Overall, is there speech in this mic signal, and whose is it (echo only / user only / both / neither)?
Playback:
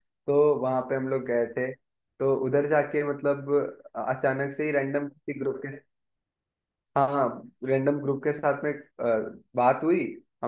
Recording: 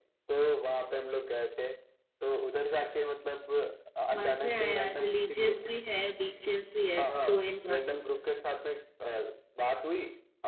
both